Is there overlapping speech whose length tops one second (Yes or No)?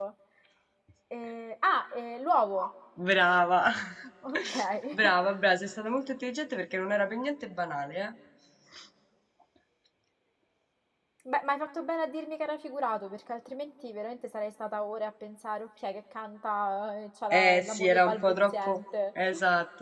Yes